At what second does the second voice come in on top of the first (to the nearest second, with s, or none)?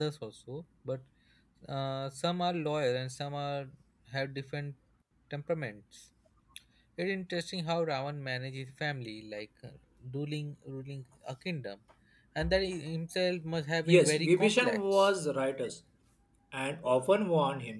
14 s